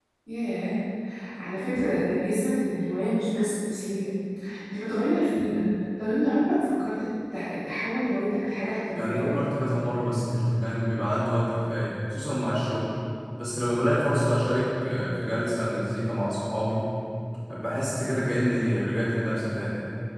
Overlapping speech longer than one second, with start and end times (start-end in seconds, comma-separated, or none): none